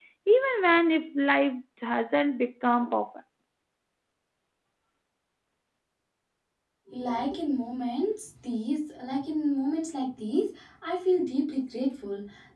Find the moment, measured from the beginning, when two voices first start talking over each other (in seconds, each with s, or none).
none